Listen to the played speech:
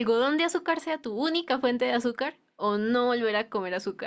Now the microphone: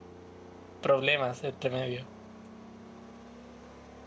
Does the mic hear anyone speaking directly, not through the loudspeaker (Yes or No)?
Yes